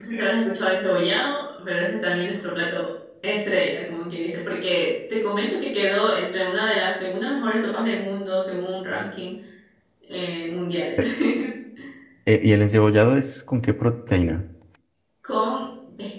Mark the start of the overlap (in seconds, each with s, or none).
none